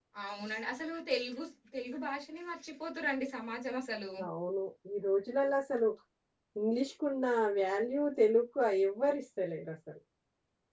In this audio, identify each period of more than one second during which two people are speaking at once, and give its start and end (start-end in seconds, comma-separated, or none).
none